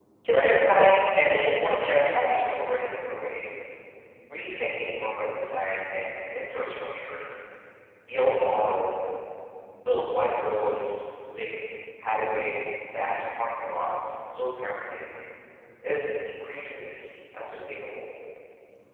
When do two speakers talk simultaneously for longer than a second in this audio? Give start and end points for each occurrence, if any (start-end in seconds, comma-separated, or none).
1.3-2.5